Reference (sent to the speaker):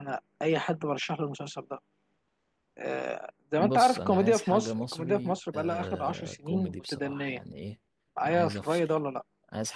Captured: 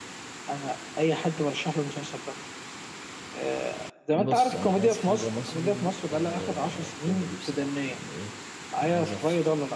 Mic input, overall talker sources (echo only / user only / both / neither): echo only